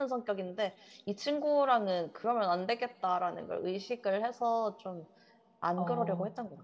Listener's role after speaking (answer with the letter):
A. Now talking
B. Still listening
A